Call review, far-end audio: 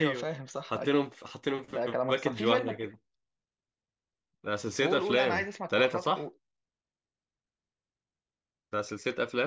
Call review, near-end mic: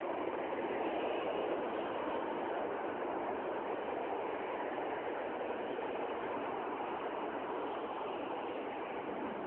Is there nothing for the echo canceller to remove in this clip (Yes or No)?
Yes